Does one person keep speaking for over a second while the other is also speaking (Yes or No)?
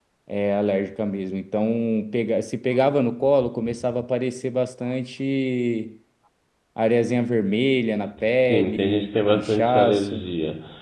Yes